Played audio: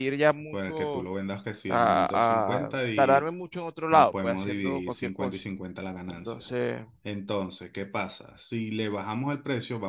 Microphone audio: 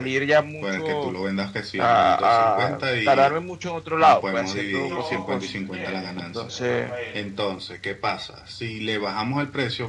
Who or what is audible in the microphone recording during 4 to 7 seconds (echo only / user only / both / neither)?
both